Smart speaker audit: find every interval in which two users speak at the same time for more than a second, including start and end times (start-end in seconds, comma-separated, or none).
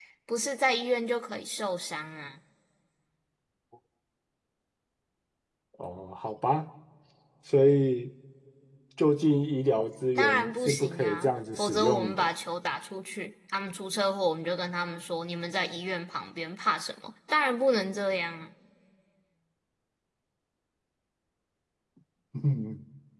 10.2-12.3